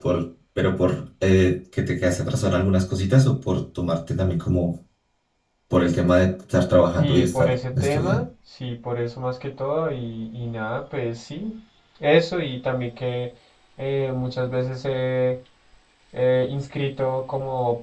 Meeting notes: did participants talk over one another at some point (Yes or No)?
Yes